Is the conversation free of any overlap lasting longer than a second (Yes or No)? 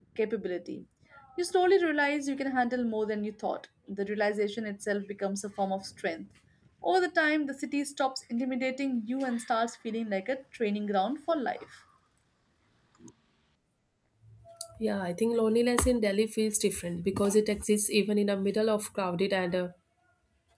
Yes